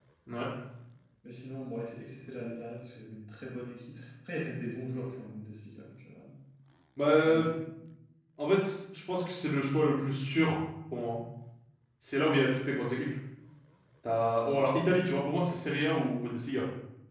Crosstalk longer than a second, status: none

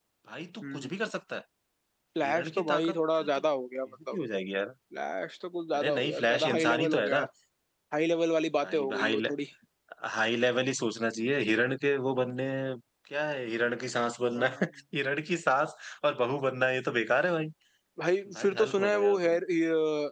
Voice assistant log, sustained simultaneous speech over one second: present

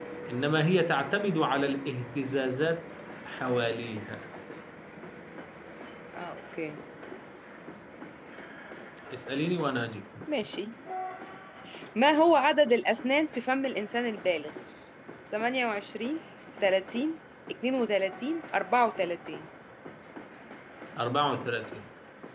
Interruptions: none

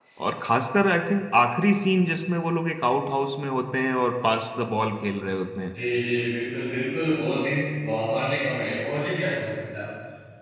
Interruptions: none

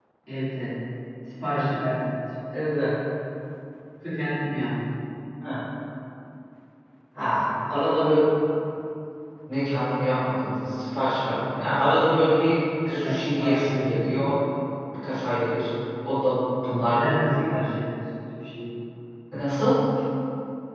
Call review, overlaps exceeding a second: present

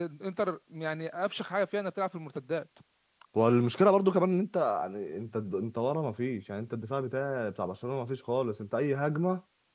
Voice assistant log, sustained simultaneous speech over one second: none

